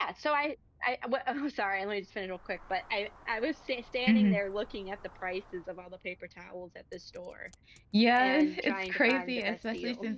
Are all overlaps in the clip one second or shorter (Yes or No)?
No